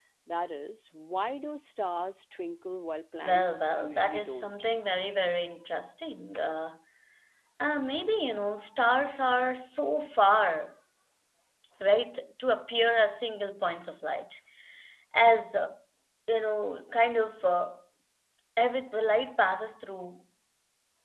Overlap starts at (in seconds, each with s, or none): 3.2 s